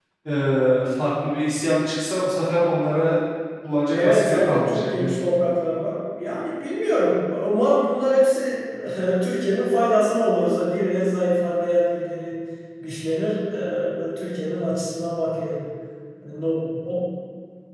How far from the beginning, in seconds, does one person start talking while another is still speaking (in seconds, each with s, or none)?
3.9 s